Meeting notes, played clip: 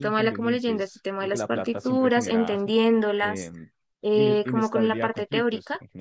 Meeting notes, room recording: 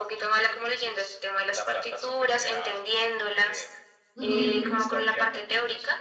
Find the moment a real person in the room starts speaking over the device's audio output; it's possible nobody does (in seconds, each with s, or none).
4.2 s